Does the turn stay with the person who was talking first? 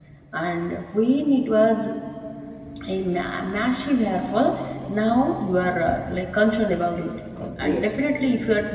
Yes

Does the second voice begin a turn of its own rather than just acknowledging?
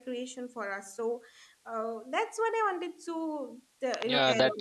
Yes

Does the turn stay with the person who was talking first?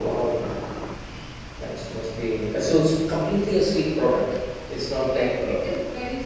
No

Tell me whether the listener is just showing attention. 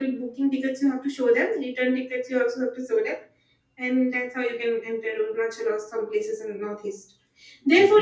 Yes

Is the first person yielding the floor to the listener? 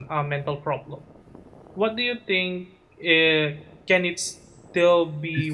Yes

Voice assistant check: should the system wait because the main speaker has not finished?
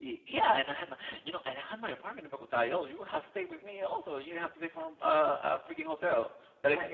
No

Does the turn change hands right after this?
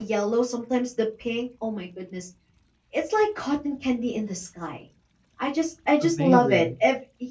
No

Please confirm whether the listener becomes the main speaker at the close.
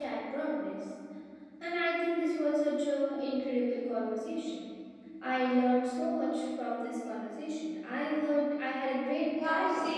Yes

